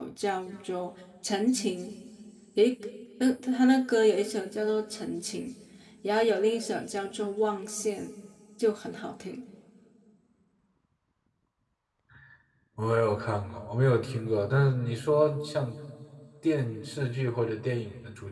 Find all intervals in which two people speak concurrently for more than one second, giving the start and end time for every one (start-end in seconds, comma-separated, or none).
none